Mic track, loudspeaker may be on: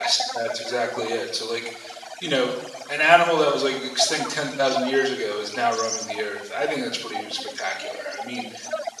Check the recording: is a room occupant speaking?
Yes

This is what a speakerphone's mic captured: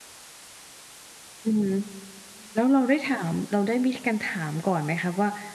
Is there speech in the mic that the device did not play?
Yes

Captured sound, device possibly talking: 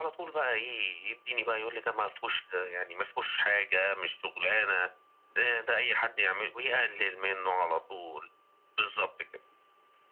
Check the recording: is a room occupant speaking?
No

